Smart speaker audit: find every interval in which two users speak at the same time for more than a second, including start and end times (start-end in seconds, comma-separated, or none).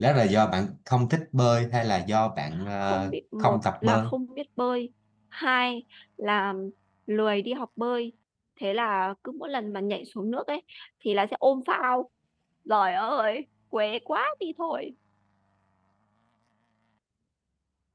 2.8-4.0